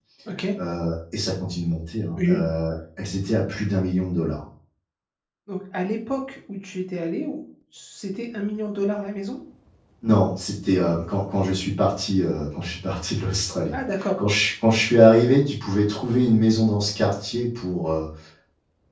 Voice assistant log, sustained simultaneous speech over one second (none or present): none